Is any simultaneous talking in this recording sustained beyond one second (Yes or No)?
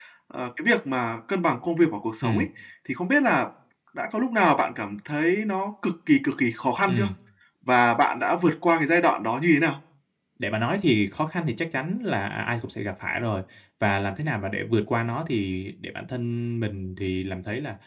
No